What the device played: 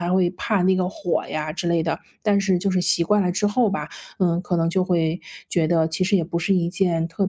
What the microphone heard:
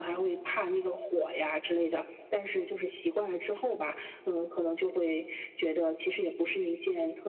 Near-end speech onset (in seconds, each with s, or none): none